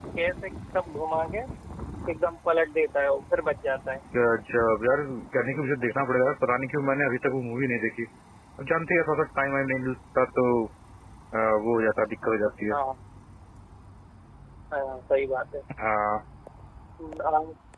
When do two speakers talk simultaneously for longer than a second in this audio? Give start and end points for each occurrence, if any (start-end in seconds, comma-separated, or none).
none